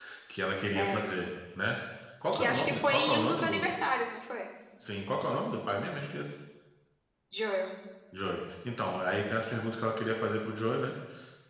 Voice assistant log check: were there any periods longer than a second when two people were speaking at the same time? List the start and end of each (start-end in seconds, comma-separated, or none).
2.3-3.7